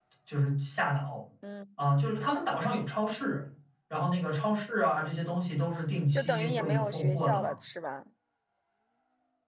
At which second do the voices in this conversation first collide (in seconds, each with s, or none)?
6.1 s